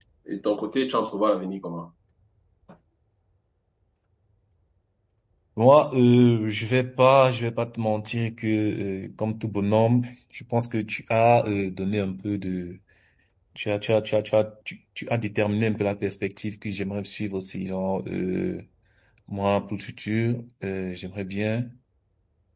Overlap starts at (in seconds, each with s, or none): none